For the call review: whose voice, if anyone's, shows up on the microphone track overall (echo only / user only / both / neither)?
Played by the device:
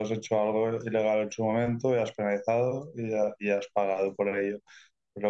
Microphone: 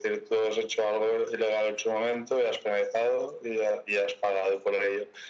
echo only